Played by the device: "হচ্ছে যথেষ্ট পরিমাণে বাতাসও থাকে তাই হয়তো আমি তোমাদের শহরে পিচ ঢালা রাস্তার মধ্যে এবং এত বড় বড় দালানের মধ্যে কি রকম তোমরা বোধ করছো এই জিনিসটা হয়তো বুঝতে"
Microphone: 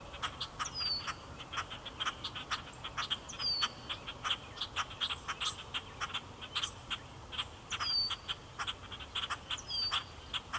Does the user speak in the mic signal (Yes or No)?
No